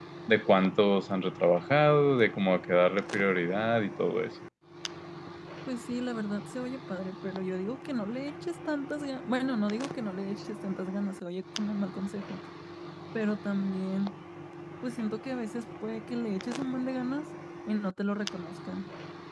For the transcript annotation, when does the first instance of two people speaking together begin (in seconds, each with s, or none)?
none